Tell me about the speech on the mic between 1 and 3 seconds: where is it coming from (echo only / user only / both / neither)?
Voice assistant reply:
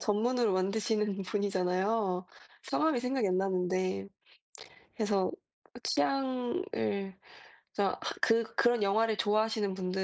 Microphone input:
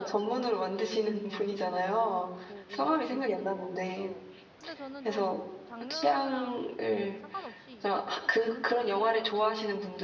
both